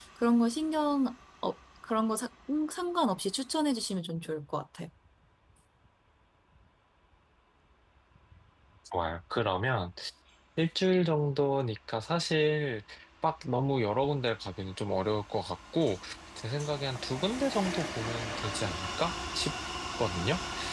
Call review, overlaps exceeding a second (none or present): none